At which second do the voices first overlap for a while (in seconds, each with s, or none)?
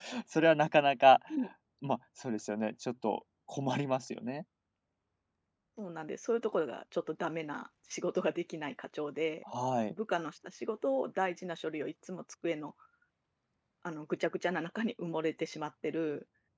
none